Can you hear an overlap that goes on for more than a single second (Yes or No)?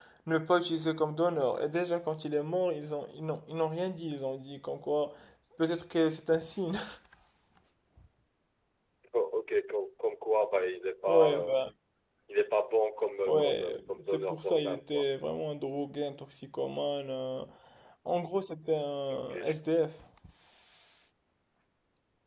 Yes